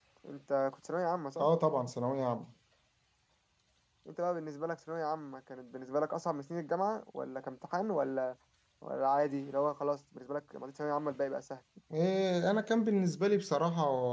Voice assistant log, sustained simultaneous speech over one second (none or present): none